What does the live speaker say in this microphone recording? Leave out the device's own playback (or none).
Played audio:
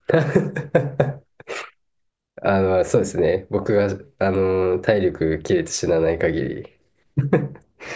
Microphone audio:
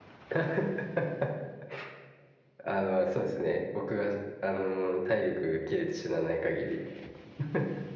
none